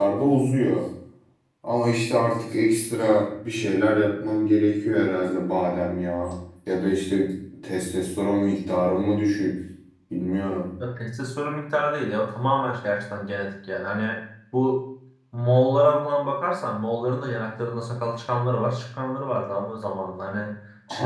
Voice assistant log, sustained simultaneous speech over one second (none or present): none